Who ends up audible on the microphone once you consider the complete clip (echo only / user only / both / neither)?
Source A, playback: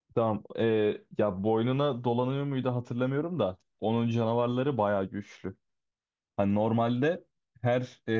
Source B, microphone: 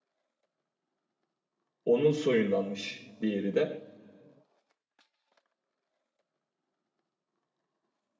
user only